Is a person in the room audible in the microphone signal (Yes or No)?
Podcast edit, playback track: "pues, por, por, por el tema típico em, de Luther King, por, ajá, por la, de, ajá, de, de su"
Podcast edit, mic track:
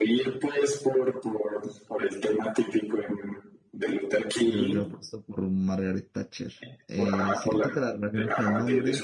Yes